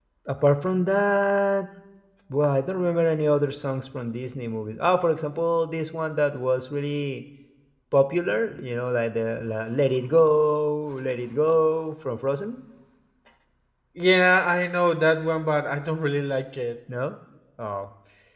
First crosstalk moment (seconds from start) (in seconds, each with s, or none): none